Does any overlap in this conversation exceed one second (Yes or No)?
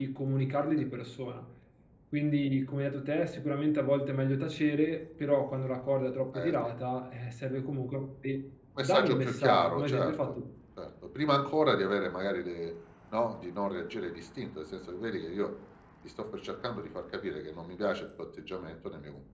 Yes